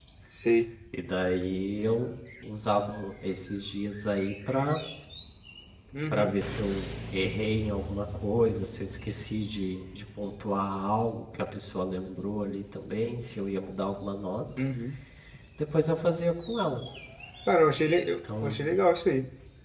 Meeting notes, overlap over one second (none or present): none